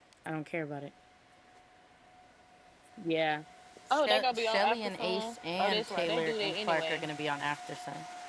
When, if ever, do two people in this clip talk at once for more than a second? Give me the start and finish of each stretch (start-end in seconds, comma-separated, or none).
3.9-7.1